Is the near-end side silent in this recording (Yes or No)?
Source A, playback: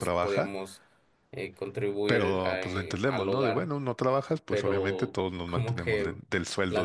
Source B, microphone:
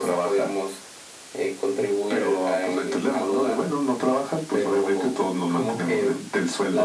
Yes